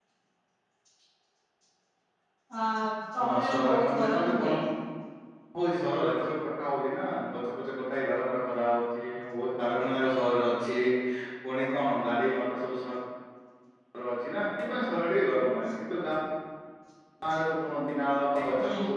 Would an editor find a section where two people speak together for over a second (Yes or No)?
Yes